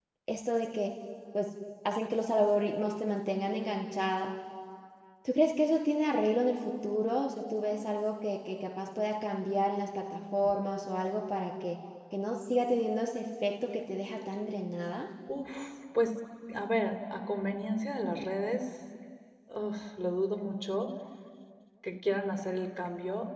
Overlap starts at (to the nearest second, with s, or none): none